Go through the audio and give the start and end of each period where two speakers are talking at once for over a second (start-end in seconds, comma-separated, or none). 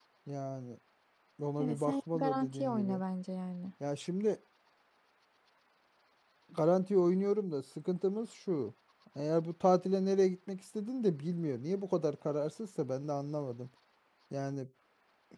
1.6-3.0